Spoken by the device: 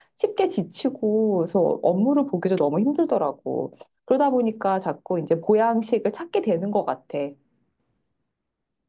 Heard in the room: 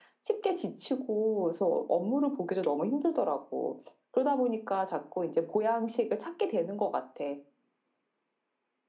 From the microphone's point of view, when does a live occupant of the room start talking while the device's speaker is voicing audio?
none

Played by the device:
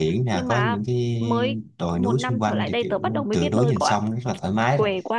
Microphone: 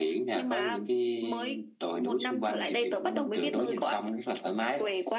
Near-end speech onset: none

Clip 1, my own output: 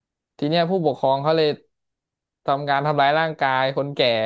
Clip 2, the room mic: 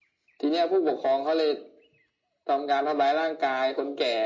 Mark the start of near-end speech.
none

